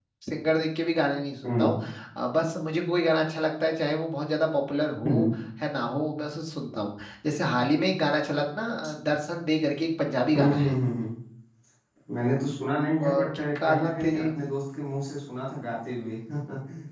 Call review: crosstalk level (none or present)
present